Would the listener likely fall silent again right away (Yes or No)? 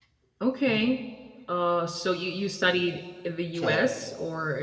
Yes